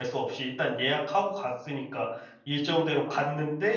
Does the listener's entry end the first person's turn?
No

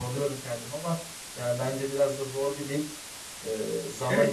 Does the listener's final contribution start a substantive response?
Yes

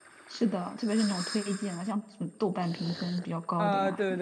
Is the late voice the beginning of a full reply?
Yes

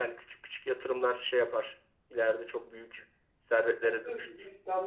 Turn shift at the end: Yes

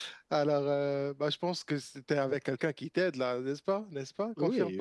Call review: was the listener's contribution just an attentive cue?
No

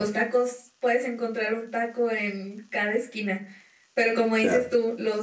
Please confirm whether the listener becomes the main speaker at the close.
No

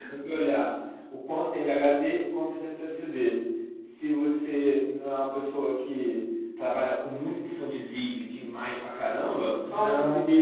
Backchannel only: Yes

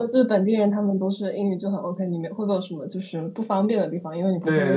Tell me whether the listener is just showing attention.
No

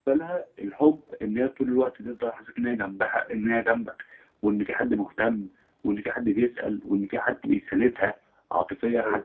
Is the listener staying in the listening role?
Yes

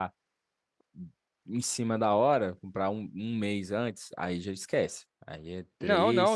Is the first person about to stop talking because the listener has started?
Yes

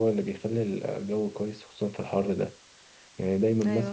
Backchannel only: Yes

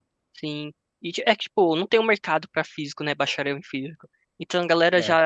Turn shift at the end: No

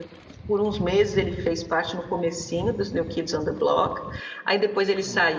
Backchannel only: Yes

